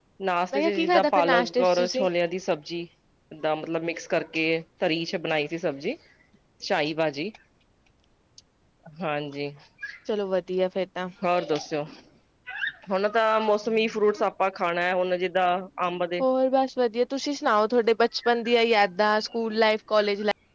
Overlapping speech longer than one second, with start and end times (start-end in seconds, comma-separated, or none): 0.5-2.1